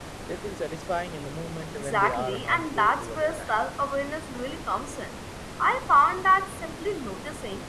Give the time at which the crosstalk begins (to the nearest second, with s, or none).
2 s